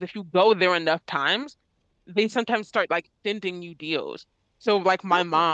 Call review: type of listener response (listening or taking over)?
listening